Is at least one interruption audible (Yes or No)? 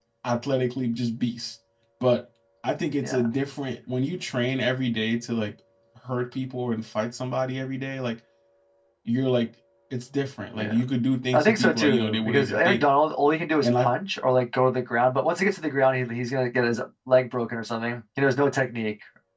Yes